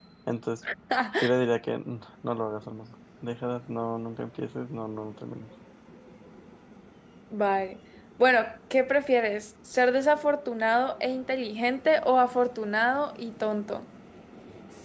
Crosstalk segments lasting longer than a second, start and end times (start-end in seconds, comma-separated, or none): none